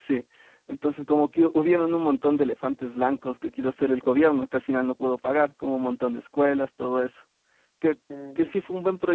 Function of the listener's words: listening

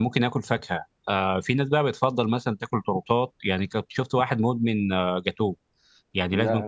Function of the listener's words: listening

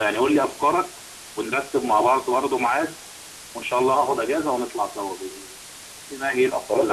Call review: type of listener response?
taking over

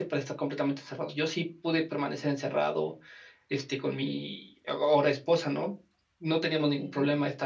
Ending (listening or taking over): listening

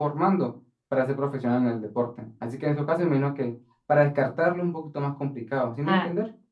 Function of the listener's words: taking over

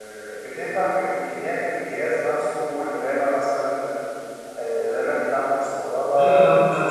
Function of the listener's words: taking over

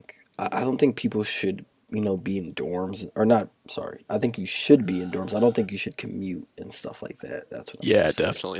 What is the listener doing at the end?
taking over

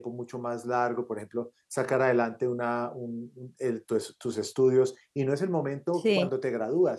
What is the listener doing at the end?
listening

